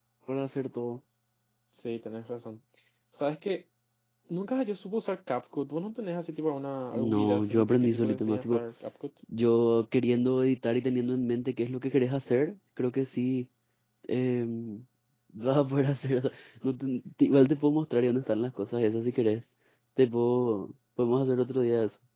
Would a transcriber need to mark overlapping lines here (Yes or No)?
Yes